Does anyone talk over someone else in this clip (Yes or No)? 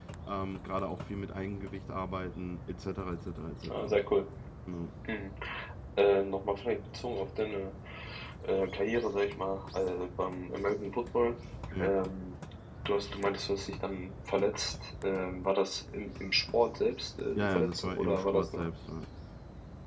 Yes